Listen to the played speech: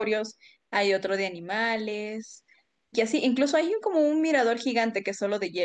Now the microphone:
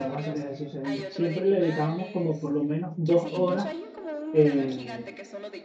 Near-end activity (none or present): present